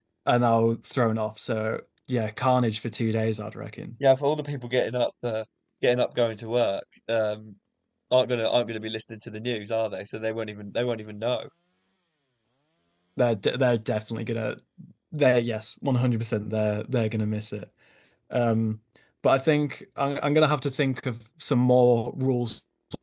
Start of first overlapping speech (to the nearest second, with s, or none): none